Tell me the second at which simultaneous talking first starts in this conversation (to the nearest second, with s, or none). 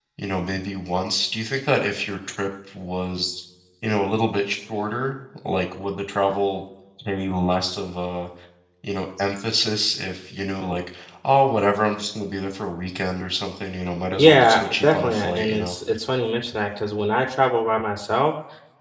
14 s